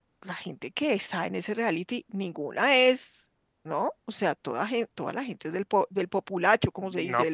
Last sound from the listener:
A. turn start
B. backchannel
A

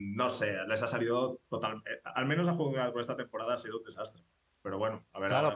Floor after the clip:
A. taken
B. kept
A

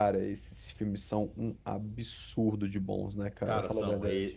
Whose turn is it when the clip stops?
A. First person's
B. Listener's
B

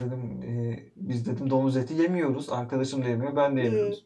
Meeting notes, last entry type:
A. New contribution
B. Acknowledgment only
B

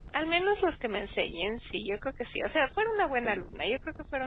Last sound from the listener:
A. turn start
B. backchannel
B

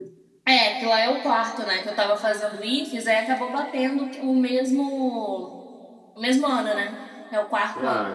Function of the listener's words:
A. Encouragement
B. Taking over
B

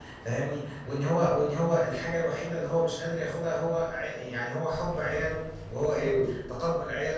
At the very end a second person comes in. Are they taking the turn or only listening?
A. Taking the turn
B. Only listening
B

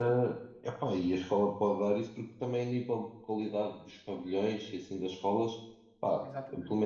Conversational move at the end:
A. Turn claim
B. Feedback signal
B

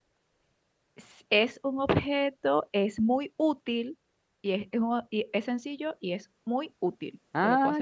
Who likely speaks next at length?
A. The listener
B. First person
A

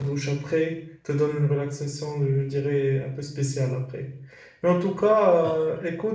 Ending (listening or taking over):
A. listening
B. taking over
A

